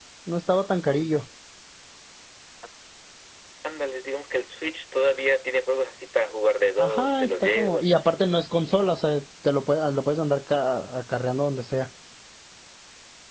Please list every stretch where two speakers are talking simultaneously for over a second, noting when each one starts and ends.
6.8-8.4

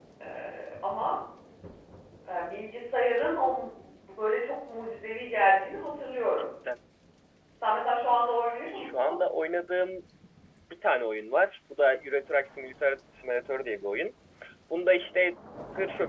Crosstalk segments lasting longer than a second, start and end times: none

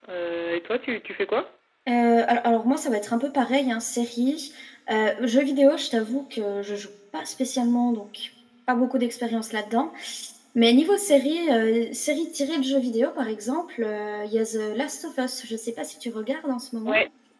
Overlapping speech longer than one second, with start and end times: none

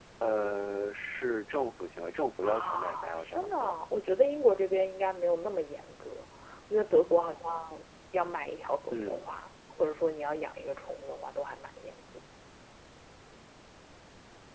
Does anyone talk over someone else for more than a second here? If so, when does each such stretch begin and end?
2.4-3.8

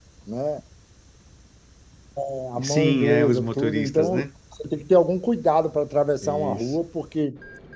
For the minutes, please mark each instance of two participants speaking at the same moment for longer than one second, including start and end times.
2.6-4.2

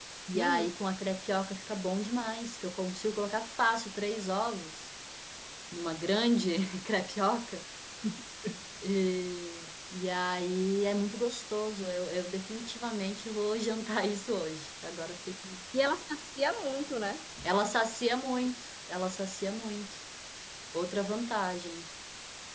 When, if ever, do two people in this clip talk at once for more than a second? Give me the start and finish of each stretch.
none

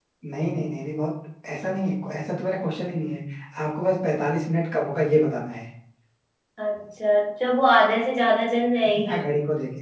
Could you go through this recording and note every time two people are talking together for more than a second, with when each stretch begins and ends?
none

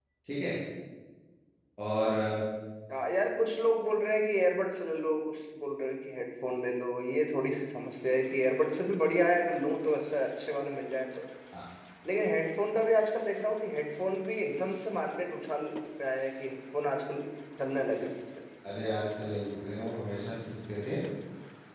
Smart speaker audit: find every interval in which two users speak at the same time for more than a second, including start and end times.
none

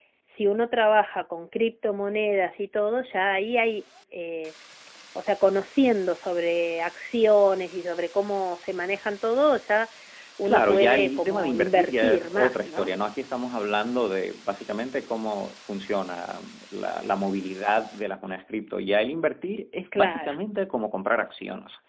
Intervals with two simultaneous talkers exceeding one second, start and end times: 10.4-12.9

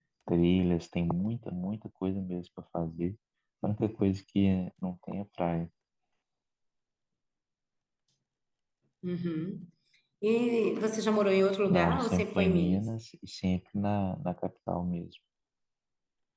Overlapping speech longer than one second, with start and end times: 11.7-12.9

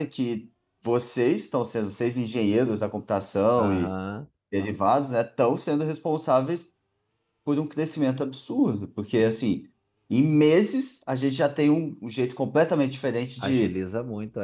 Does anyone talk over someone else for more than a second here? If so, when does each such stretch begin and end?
none

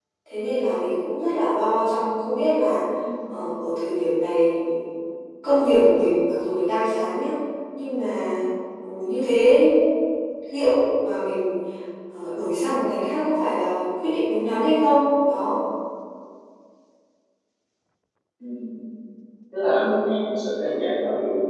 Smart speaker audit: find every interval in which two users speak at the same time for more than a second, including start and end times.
none

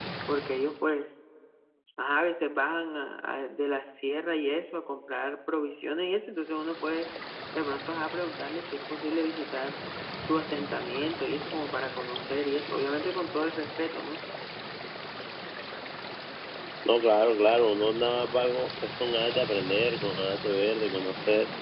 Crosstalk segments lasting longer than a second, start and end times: none

